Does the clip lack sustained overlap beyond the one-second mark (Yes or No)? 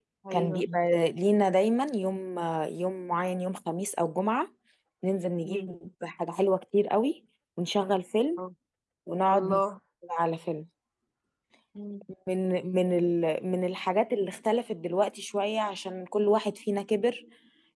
Yes